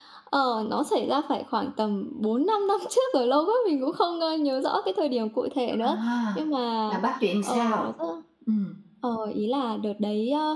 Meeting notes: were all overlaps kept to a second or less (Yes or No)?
Yes